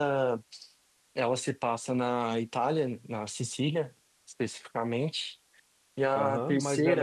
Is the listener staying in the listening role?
No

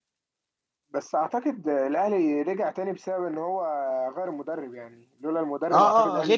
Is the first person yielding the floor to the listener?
Yes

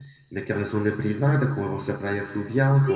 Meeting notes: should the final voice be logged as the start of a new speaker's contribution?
Yes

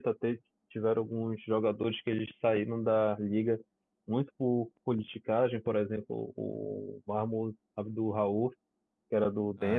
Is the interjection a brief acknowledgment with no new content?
Yes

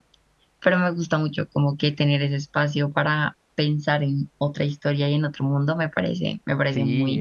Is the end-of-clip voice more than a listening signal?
Yes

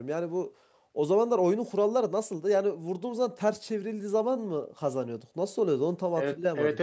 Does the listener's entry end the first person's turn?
Yes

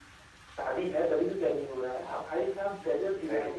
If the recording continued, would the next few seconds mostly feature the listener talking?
No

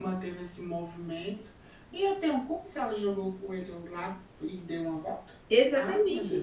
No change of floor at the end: No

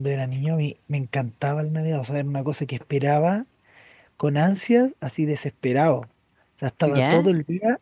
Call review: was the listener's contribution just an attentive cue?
Yes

